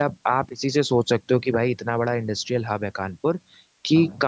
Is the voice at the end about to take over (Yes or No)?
No